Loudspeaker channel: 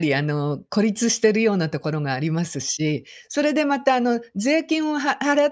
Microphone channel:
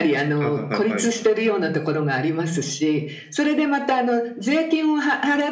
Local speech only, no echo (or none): はいはいはいはい。